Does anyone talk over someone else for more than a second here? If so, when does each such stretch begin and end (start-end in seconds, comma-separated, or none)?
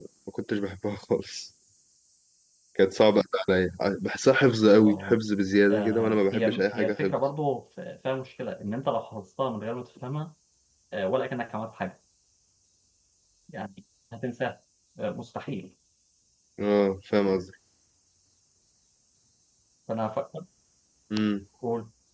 5.7-7.1